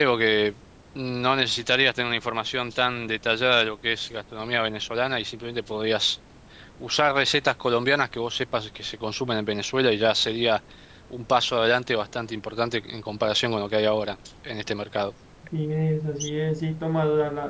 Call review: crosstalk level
none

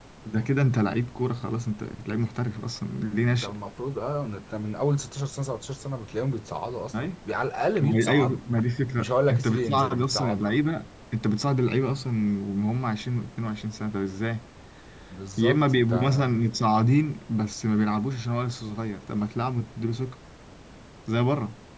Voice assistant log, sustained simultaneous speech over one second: present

